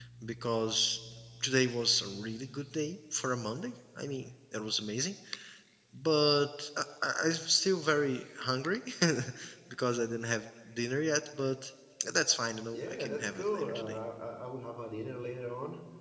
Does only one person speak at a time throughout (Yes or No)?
No